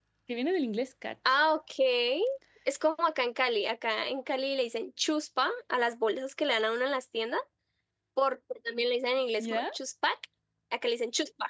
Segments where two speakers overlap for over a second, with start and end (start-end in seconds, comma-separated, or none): none